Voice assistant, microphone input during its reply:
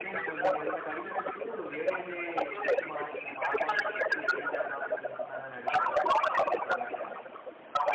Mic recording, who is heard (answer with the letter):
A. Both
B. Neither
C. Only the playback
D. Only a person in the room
A